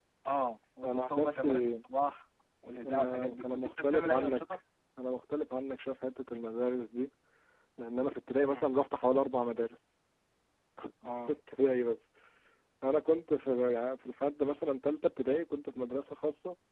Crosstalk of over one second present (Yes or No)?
Yes